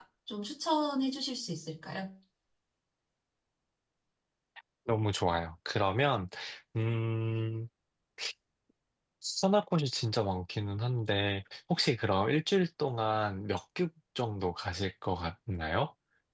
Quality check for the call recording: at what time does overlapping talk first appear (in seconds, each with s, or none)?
none